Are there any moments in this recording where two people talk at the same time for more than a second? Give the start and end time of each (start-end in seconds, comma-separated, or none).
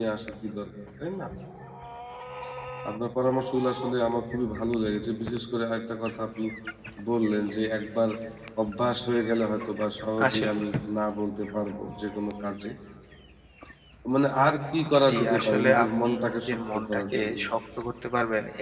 15.1-17.4